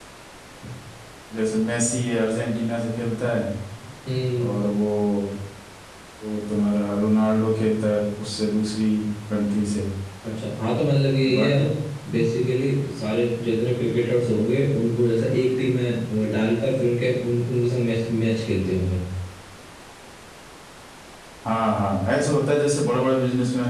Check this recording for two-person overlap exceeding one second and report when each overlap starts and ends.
none

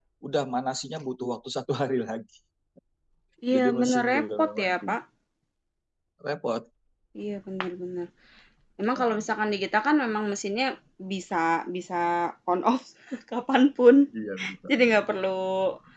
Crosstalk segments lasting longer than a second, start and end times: 3.5-4.8

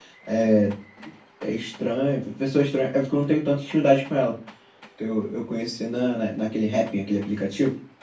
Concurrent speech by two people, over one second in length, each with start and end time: none

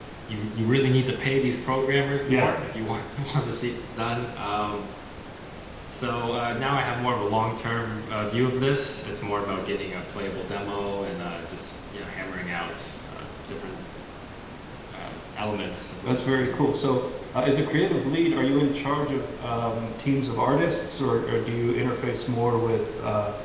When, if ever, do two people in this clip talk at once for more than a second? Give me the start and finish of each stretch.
none

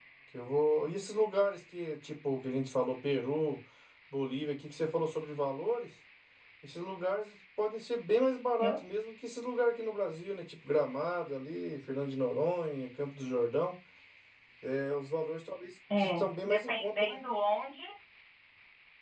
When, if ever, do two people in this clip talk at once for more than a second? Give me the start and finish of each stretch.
16.0-17.2

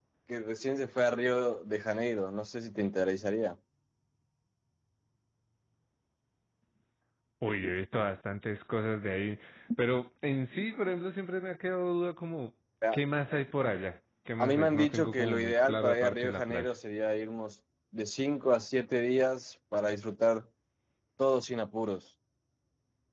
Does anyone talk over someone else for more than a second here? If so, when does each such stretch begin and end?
14.4-16.7

